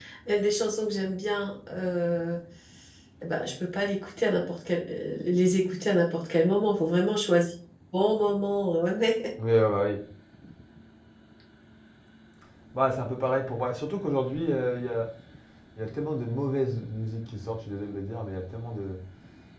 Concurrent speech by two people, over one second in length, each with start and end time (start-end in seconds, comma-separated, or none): none